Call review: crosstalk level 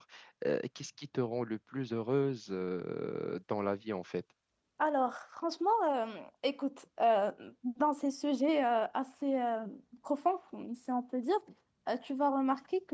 none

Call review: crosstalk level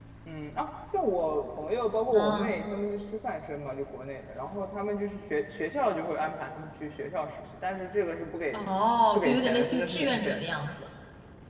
present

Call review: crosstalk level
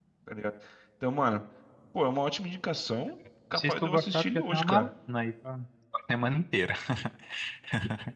present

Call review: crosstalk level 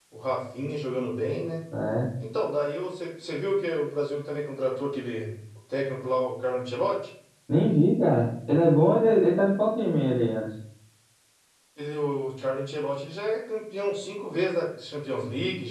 none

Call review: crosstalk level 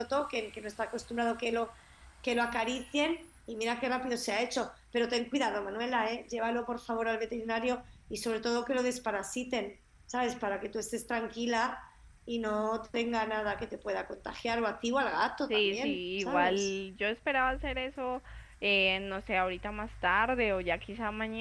present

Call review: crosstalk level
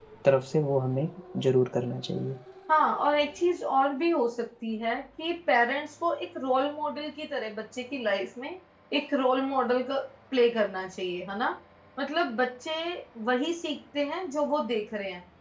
none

